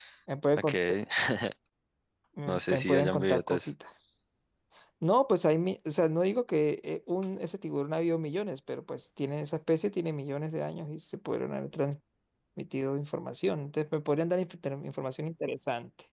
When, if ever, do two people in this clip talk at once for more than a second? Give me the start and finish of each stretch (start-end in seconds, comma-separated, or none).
2.5-3.7